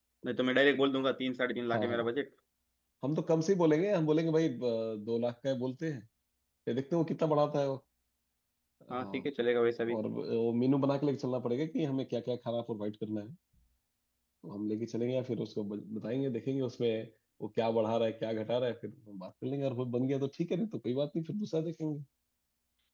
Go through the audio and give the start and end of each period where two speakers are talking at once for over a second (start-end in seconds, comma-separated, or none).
none